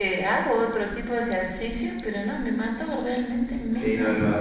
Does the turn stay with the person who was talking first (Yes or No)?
No